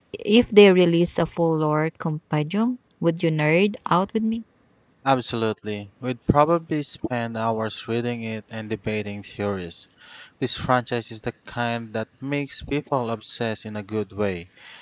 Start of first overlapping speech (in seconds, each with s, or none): none